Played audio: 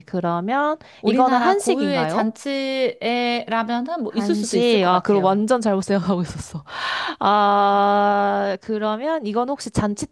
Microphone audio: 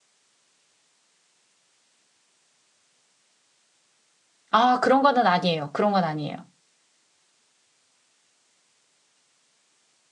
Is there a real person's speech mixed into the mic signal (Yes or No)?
Yes